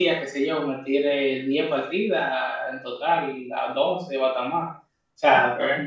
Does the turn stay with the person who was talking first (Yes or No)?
Yes